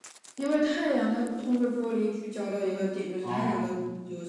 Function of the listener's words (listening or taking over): listening